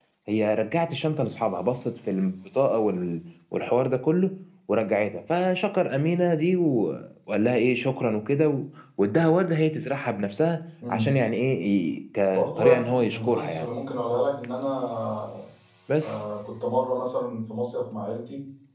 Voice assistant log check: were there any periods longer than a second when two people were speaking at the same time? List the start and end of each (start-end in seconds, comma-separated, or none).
12.3-13.7